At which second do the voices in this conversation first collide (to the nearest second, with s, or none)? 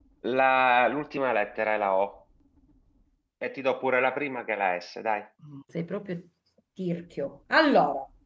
none